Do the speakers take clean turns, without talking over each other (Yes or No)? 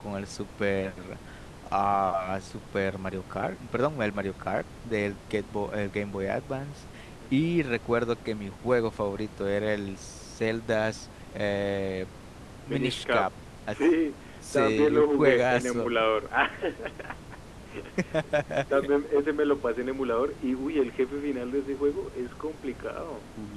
No